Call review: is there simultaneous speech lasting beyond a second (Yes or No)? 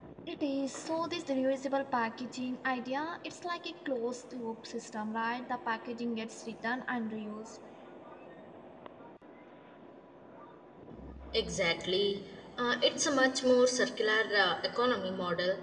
No